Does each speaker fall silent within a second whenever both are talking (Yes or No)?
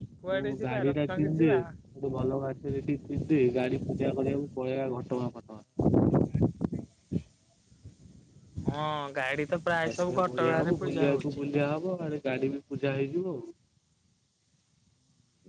No